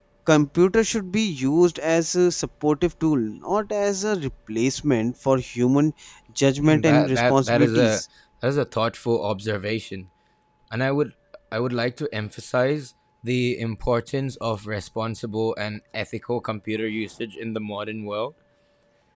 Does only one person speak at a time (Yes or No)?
No